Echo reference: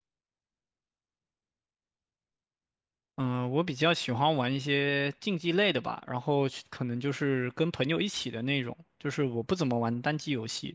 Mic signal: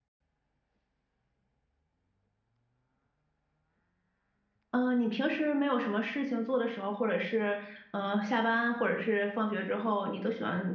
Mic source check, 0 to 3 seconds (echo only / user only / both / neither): neither